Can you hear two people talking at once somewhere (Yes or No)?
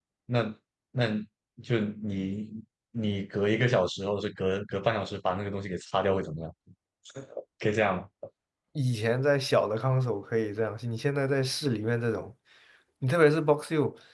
No